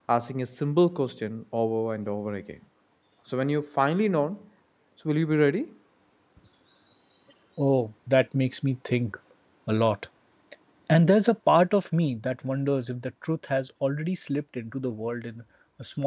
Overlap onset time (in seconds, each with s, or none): none